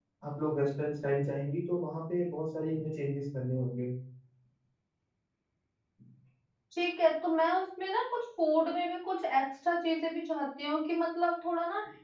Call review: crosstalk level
none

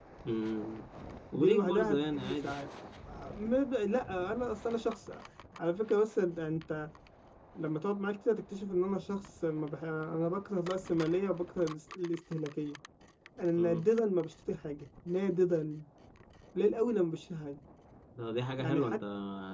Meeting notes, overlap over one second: present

